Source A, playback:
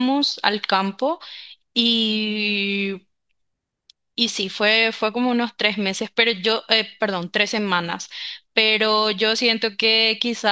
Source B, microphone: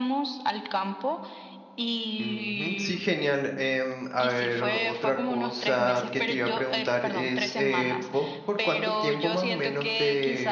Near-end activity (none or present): present